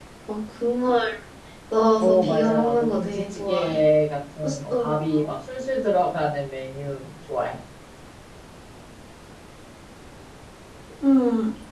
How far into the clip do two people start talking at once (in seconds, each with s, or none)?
2.0 s